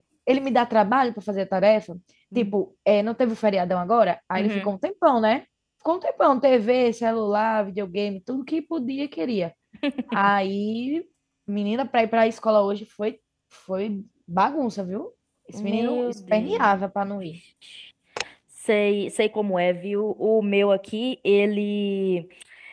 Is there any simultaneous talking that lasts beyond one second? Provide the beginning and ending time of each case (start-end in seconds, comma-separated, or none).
15.5-16.8